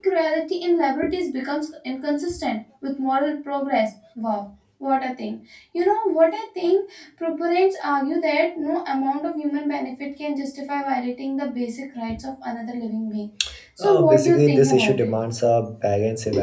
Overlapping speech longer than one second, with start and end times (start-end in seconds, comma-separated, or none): 13.8-15.1